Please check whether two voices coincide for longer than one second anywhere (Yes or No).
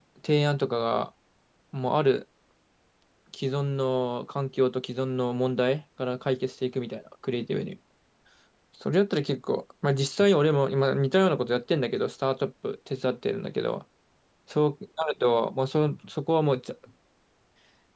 No